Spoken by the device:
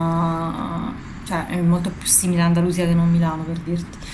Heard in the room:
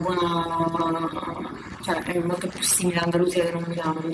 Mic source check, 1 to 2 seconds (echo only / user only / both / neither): echo only